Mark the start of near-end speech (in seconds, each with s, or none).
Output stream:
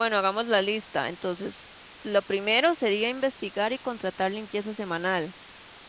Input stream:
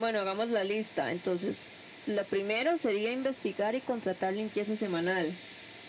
none